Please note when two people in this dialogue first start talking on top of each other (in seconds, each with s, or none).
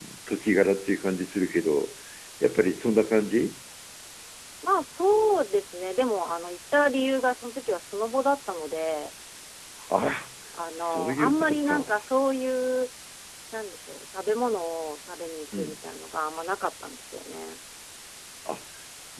10.8 s